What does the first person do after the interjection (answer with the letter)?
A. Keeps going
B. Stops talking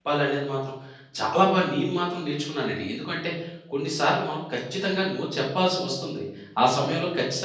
A